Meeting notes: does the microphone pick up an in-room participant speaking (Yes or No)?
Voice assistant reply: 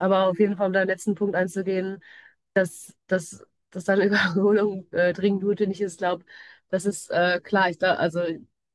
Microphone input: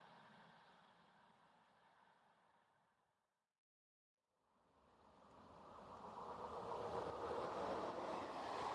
No